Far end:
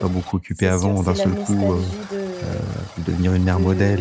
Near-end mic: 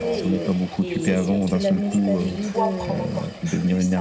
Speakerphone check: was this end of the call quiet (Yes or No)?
No